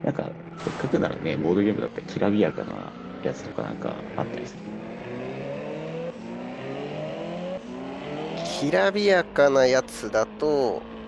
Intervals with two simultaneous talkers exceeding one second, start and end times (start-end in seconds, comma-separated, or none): none